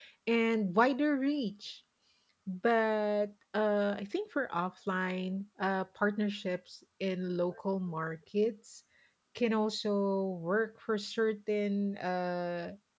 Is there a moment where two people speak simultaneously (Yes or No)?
No